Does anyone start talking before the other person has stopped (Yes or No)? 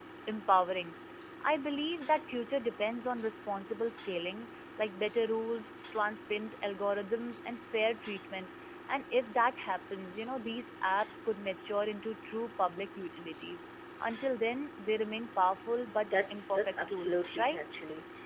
Yes